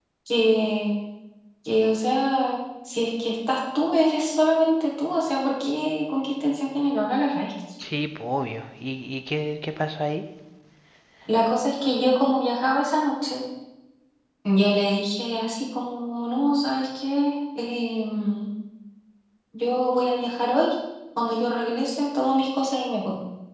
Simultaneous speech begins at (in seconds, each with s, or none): none